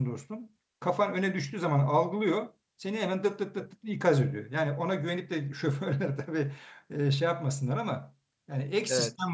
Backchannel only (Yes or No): Yes